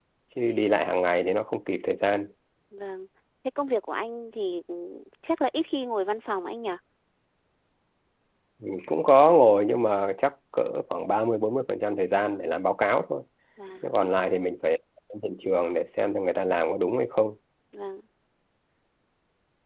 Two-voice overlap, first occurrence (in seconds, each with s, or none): none